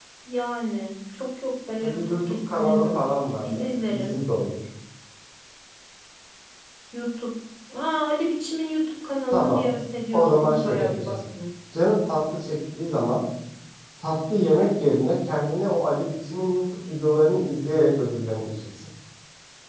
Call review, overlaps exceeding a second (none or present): present